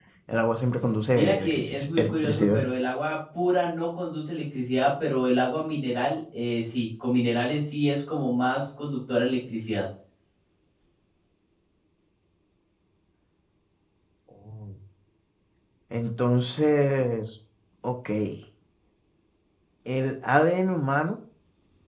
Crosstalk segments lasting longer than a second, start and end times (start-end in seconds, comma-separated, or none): 1.1-2.6